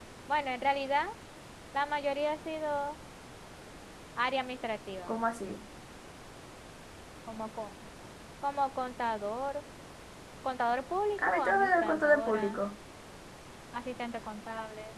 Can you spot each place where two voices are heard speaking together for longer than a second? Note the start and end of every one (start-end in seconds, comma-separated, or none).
11.2-12.6